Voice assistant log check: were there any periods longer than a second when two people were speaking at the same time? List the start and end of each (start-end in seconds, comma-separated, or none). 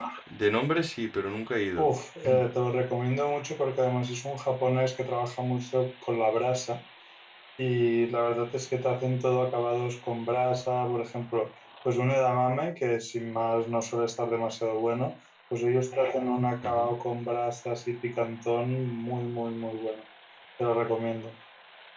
none